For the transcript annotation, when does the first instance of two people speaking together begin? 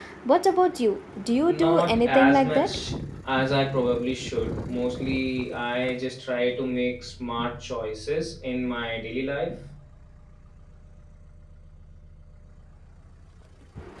1 s

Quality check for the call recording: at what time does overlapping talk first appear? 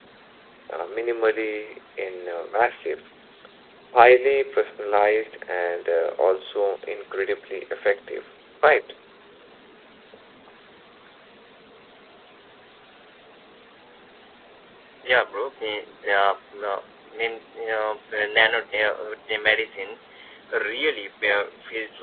none

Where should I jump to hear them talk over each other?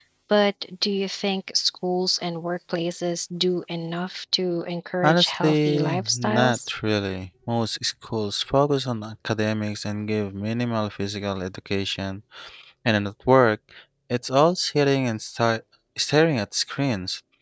5 s

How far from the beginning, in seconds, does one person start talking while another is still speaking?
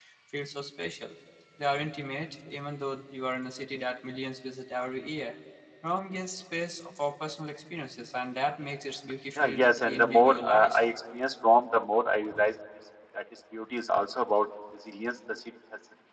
9 s

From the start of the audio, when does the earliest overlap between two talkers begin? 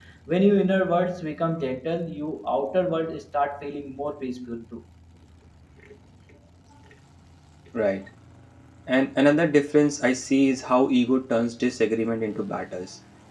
none

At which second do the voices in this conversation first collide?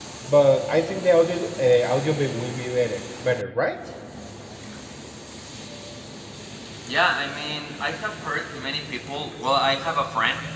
none

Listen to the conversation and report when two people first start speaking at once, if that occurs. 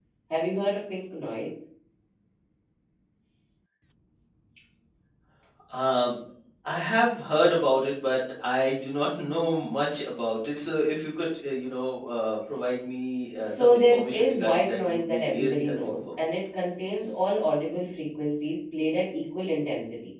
13 s

